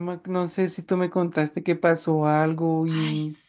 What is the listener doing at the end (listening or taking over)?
taking over